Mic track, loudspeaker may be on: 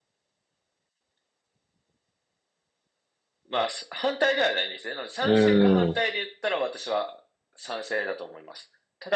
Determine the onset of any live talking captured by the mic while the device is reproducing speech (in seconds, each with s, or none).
5.2 s